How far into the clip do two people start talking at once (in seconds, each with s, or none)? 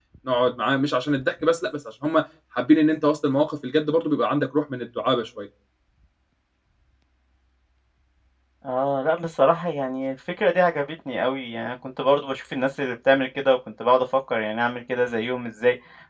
none